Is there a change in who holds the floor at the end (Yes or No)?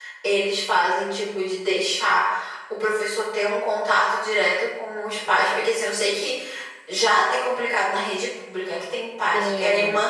No